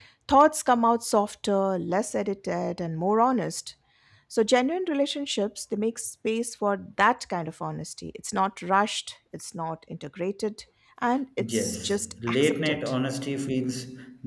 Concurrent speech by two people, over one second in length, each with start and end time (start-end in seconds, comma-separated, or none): 11.5-12.8